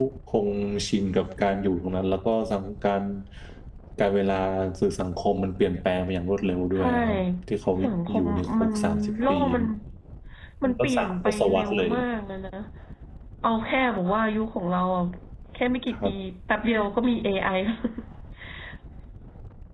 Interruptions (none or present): present